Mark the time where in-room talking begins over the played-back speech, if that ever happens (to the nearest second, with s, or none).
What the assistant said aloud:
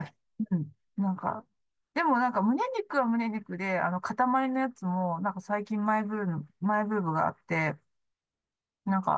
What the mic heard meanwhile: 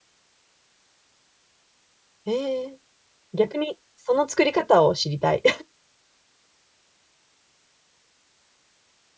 2 s